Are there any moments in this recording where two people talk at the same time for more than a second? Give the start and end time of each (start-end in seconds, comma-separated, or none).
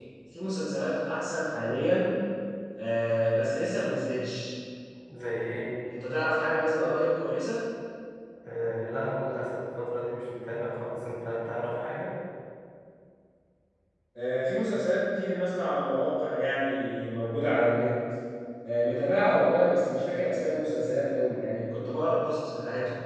none